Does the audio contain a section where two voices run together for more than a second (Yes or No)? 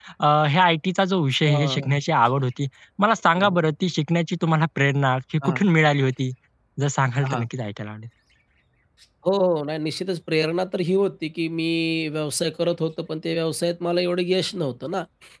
No